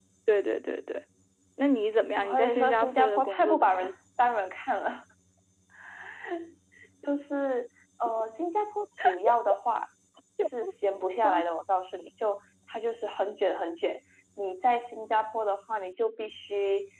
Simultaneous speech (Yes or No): Yes